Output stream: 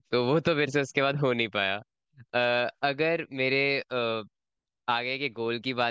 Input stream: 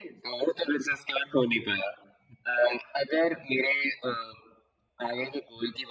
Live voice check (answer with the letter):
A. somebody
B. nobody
B